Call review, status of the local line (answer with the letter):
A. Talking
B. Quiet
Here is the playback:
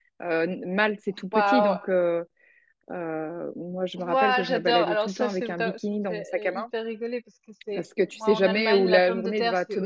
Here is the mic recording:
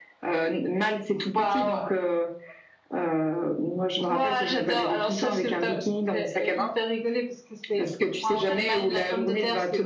B